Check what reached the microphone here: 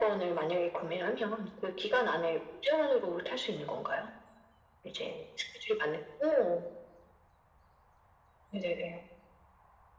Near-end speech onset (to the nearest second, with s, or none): none